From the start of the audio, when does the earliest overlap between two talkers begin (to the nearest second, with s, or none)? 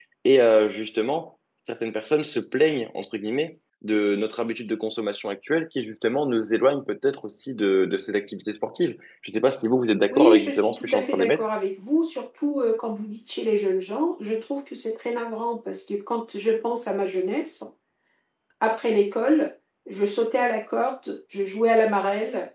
10 s